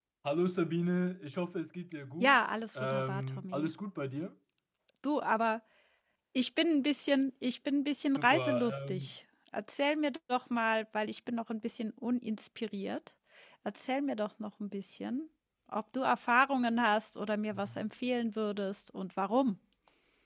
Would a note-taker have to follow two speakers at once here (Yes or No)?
Yes